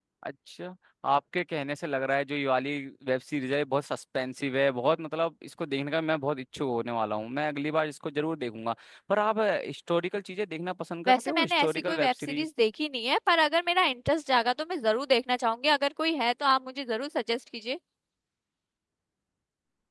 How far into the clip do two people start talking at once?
11.1 s

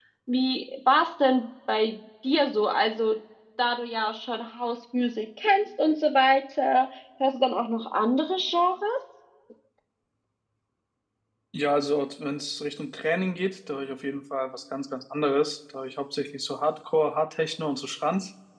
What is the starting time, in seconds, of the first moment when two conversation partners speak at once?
none

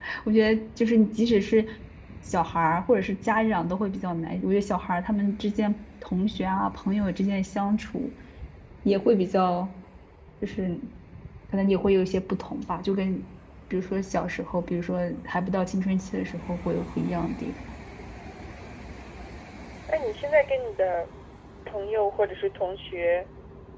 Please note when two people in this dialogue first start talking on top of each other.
none

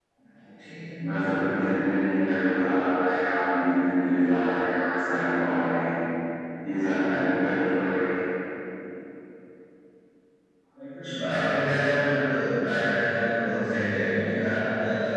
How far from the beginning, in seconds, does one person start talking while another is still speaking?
none

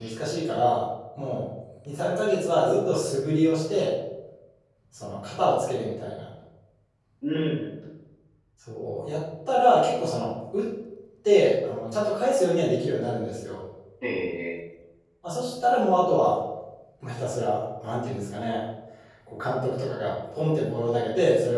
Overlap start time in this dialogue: none

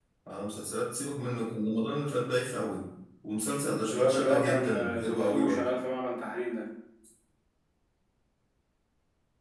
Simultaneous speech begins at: 3.9 s

